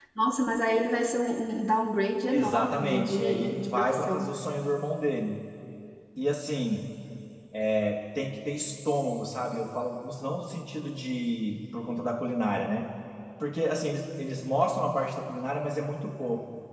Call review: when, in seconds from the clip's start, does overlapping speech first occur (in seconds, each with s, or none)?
2.3 s